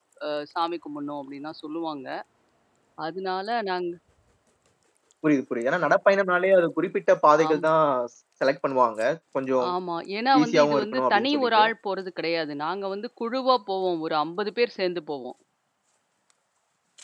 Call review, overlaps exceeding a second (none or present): present